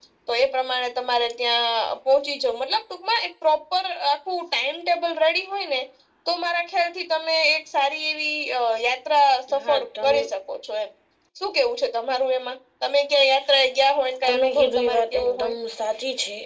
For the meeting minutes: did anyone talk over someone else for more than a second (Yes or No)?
Yes